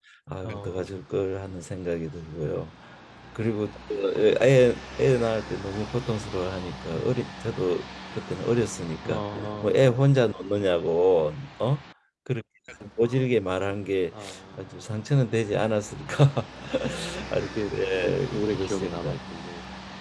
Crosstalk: present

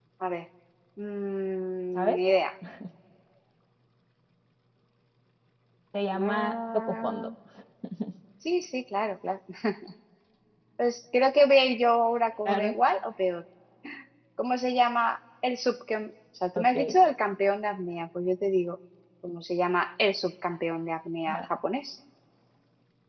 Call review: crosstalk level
present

